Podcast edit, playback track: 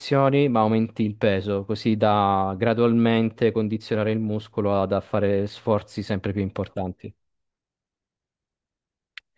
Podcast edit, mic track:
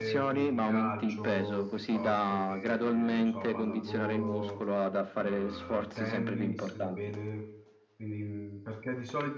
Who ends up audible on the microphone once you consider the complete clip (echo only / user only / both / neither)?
both